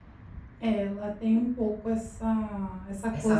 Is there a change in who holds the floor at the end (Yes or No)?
No